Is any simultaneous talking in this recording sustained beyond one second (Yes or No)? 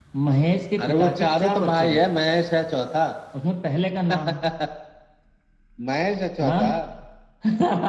Yes